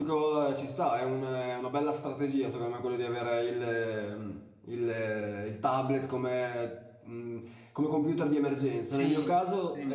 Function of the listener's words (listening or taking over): listening